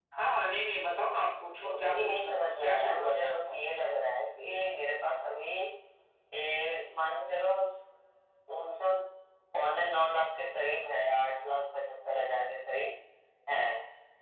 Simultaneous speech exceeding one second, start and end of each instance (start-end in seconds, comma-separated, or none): 1.8-3.5